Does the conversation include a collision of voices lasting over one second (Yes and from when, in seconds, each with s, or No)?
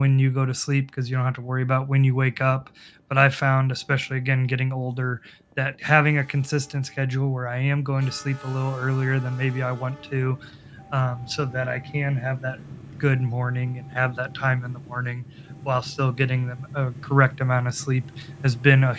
No